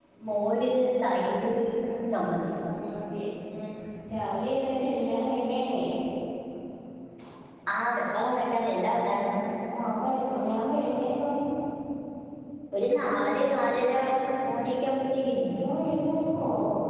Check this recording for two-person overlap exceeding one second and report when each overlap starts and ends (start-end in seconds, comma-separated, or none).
none